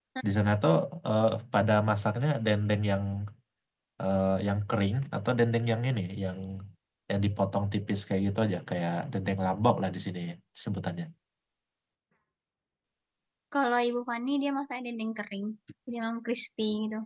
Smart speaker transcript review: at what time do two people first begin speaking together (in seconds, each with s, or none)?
none